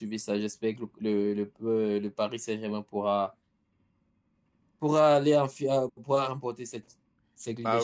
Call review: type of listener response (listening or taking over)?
taking over